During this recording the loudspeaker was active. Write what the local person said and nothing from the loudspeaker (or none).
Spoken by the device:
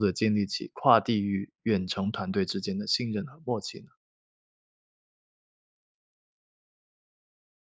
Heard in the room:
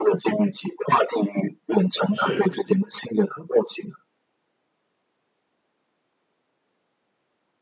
是。